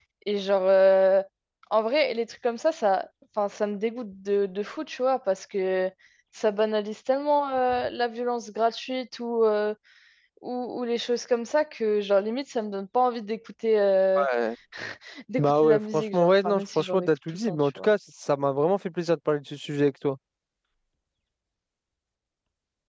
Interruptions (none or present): present